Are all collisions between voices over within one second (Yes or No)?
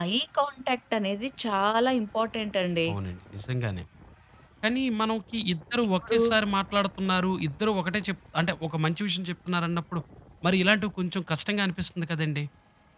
Yes